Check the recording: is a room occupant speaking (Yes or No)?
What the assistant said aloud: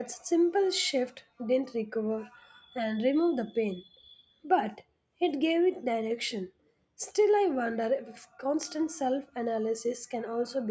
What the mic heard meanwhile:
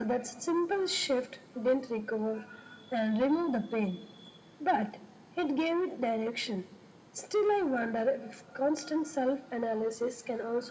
No